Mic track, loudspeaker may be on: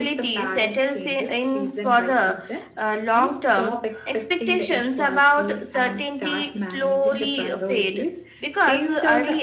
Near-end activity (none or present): none